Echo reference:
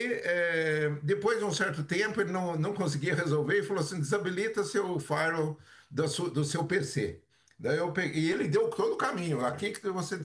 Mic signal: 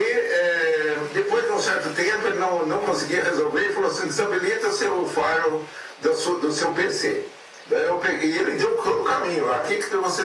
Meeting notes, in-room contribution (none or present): none